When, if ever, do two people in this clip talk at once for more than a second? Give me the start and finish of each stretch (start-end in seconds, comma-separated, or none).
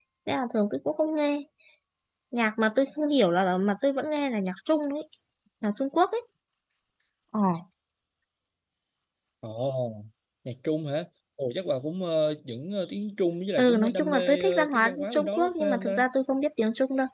13.6-16.0